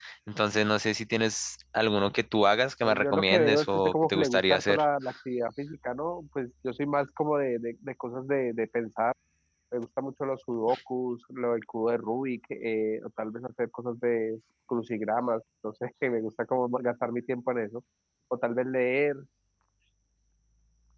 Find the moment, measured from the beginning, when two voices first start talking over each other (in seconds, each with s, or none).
2.8 s